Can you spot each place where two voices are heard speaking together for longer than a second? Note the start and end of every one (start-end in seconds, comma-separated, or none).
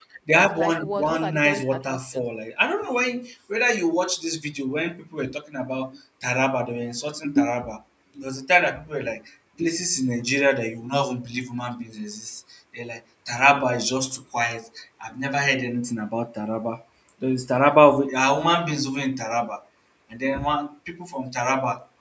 0.5-2.2